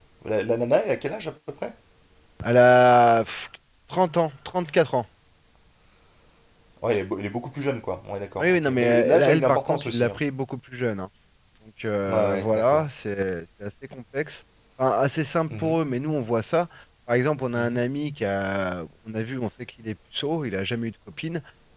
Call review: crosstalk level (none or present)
present